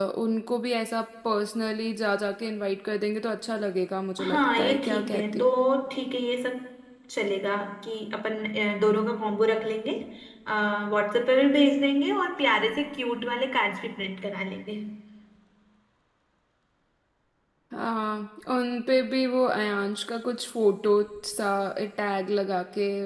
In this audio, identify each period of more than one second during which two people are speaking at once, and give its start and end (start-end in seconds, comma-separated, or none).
4.2-5.5